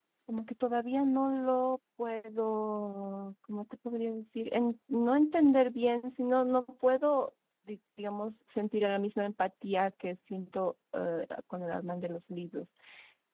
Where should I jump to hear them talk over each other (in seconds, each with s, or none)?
none